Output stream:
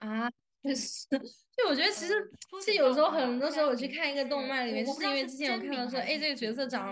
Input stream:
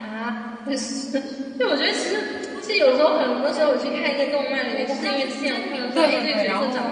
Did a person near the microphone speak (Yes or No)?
Yes